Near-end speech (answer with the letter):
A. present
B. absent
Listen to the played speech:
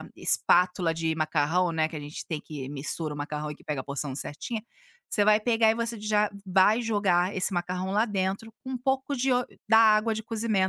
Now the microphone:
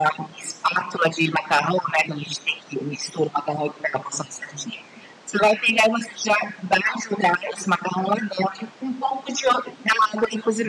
B